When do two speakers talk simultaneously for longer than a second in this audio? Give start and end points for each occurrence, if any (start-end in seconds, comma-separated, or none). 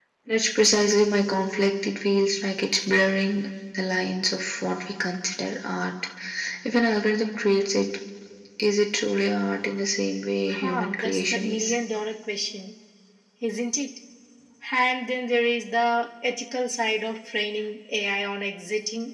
10.5-11.7